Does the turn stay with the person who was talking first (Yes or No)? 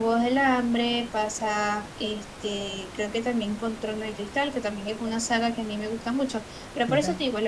Yes